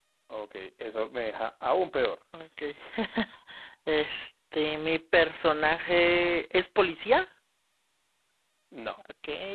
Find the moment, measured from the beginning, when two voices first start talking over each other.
none

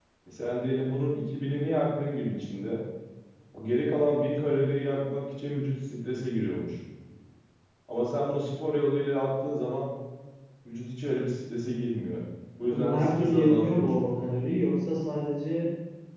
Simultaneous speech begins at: 13 s

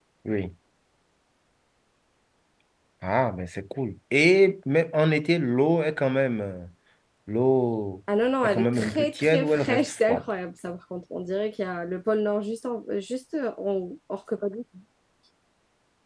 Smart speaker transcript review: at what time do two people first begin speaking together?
8 s

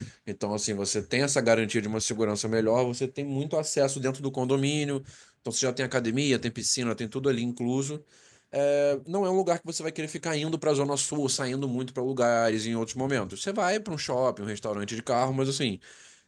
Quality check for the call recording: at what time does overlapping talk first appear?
none

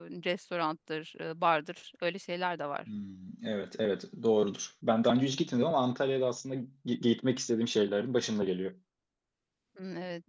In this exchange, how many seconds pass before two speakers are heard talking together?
none

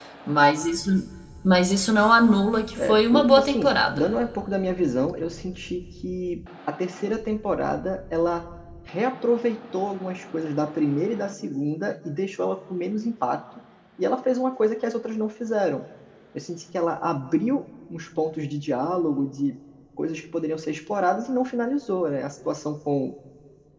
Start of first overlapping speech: 3 s

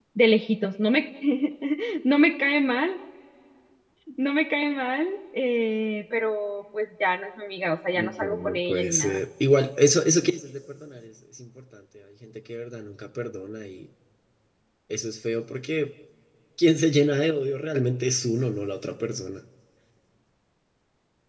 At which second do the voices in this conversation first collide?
8 s

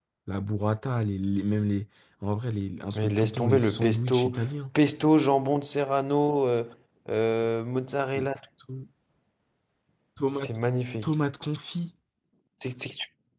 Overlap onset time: 3 s

